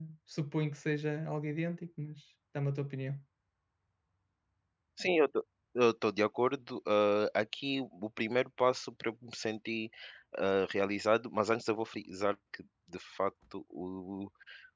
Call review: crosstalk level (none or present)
none